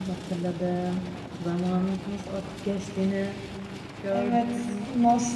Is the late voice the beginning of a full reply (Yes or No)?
Yes